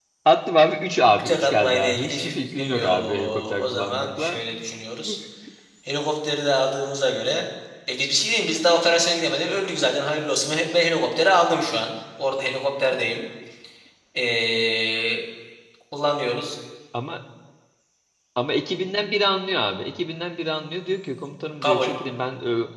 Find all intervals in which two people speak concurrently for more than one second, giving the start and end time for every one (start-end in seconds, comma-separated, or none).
1.1-4.4